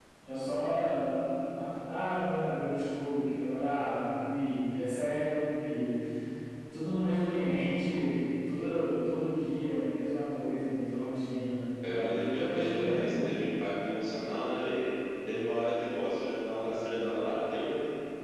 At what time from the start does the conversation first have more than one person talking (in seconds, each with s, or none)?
11.8 s